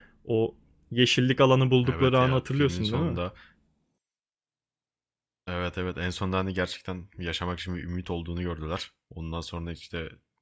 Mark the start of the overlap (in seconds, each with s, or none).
1.8 s